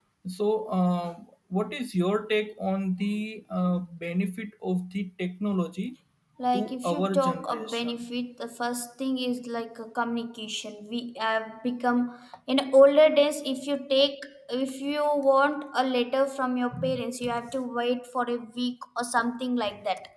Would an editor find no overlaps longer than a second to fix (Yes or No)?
No